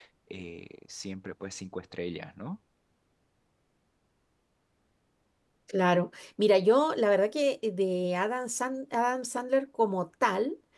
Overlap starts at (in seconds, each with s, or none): none